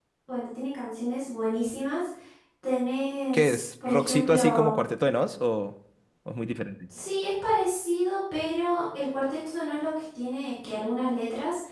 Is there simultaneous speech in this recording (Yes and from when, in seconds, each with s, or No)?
Yes, from 3.3 s